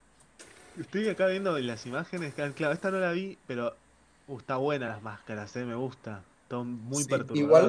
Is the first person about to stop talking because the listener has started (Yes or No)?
Yes